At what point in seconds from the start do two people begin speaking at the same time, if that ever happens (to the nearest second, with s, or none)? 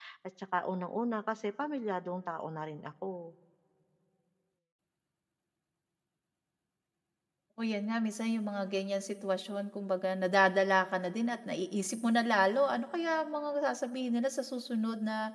none